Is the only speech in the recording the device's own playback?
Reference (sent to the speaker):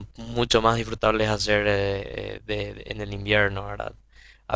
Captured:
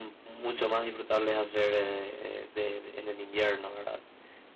Yes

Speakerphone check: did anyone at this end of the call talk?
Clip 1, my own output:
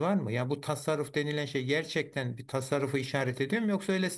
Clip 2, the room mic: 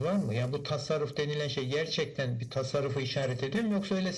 No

